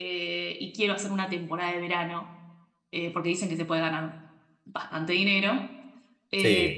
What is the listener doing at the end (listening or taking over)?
listening